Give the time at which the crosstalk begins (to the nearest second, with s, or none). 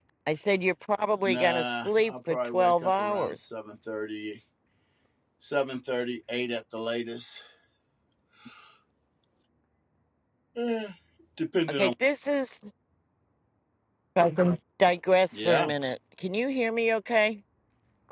1 s